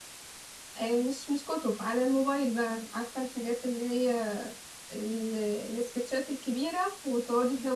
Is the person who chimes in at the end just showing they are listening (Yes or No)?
Yes